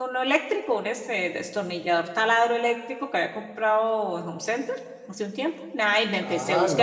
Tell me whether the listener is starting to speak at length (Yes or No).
Yes